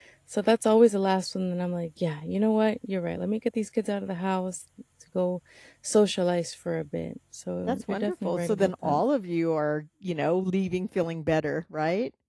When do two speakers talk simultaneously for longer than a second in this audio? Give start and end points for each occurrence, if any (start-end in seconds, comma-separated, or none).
7.7-9.0